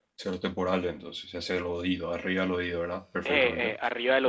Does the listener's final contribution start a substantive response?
Yes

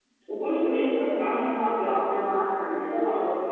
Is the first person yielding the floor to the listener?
No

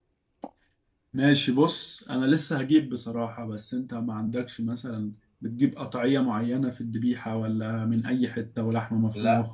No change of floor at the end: No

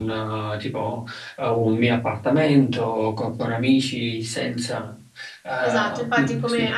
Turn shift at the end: Yes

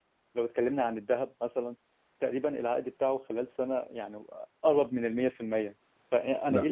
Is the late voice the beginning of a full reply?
No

